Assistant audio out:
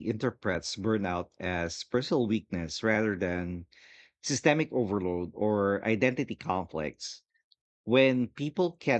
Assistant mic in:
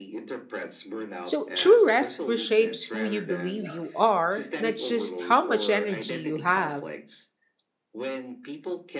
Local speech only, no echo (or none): So, true rest reshapes who you believe you are, not just how much energy you have.